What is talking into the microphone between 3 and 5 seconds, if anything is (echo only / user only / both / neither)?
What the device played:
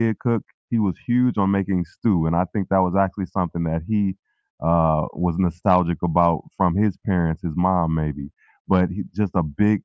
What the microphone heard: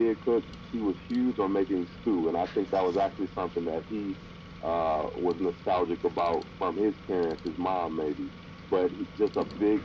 echo only